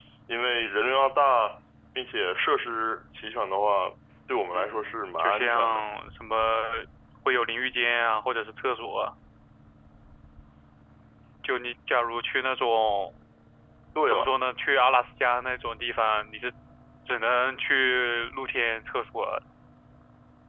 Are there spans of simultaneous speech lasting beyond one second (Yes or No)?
Yes